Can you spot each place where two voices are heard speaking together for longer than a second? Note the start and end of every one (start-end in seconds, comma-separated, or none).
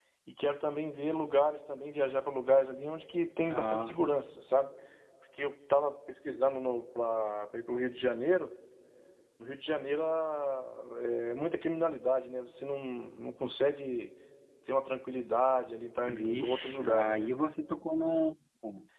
16.1-17.3